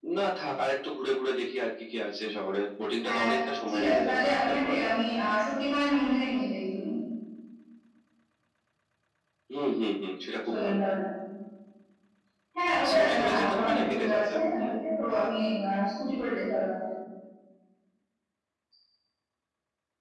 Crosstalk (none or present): present